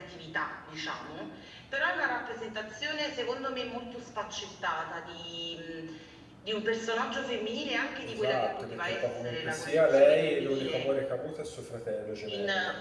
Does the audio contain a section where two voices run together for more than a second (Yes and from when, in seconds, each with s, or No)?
Yes, from 8.0 s